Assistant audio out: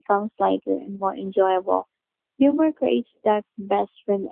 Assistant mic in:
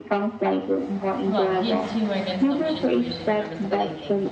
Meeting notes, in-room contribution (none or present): present